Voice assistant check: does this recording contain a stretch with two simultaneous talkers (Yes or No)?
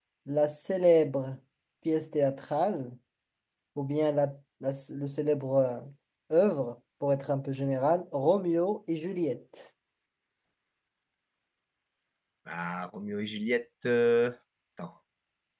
No